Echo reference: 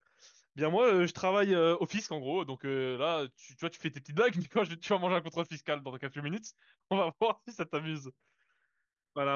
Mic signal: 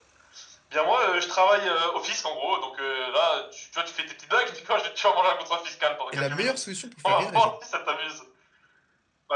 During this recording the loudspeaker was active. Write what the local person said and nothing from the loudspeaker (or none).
est la meilleure solution pour faire rire les gens.